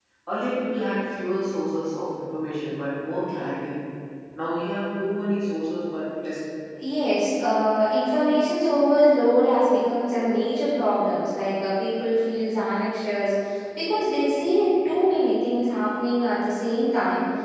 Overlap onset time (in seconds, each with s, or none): none